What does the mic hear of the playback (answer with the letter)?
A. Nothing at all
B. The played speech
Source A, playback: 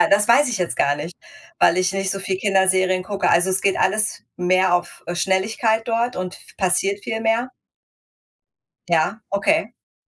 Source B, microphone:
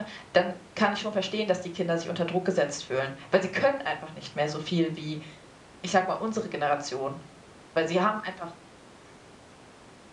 A